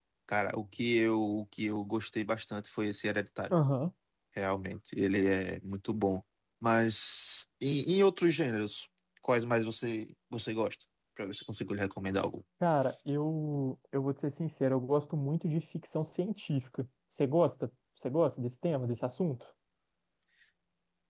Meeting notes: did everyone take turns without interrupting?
Yes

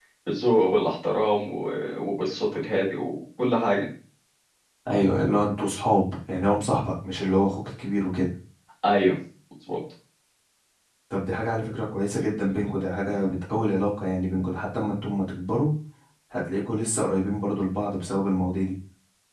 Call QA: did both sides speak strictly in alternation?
Yes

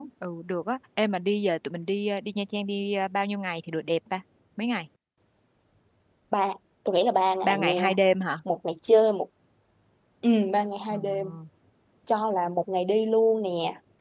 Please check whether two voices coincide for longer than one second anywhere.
No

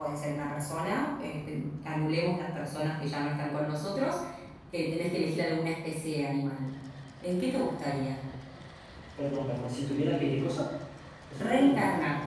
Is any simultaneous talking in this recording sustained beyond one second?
No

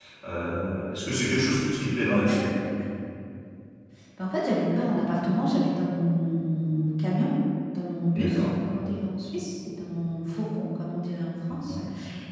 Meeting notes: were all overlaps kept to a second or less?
Yes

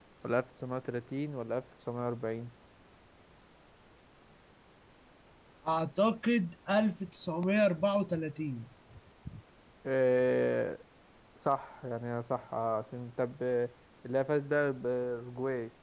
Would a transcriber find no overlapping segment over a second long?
Yes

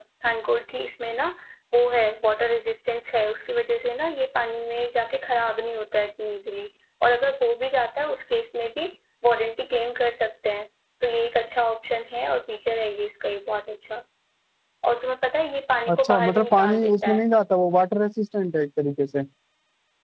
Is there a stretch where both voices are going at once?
Yes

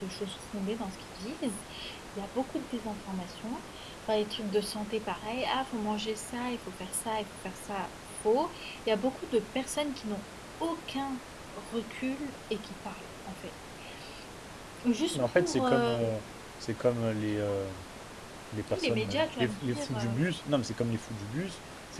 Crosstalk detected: Yes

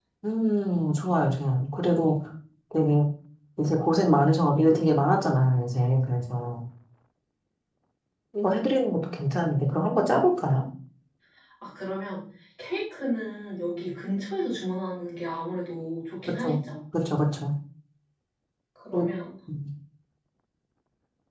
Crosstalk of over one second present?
No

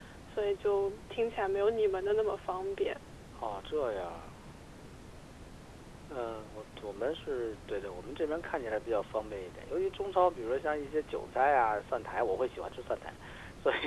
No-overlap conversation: Yes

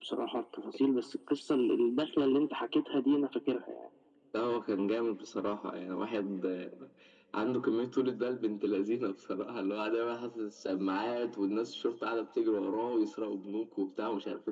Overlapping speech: No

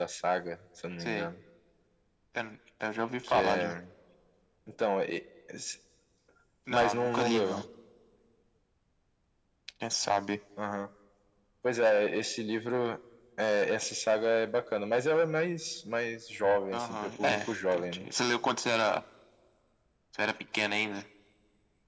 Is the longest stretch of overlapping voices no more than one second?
No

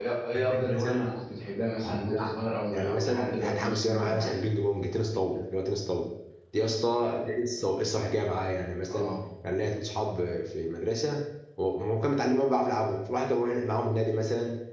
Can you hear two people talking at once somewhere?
Yes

